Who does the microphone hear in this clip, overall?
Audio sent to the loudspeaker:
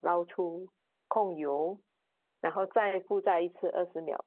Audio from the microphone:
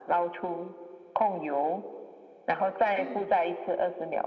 both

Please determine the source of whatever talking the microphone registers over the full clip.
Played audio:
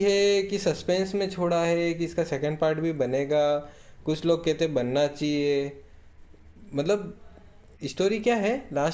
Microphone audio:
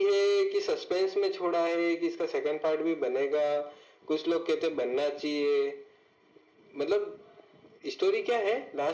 echo only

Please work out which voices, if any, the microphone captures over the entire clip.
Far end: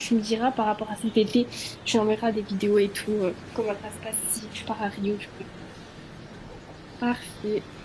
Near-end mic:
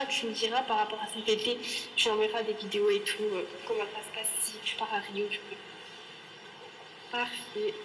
echo only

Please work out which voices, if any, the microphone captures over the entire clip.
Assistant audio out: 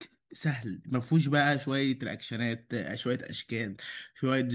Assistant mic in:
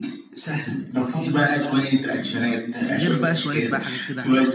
both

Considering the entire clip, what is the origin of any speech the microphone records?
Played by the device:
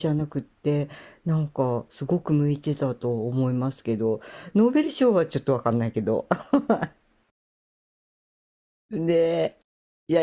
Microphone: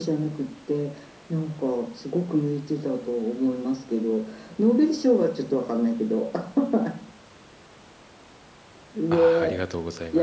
both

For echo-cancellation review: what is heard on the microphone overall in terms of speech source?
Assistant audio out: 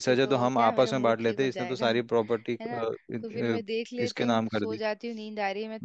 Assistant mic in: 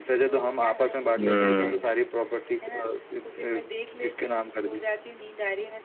both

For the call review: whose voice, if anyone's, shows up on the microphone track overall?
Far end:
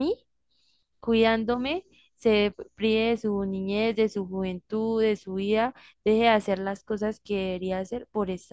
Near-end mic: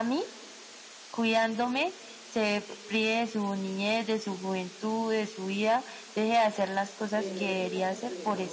both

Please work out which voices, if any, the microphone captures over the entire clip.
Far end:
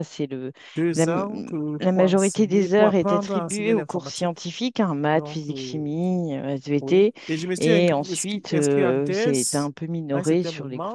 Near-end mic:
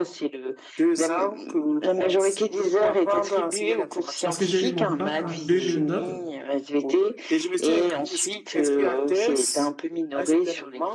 both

